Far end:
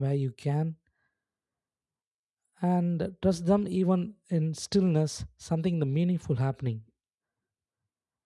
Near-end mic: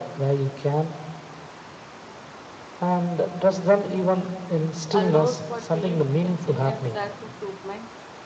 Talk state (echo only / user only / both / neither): both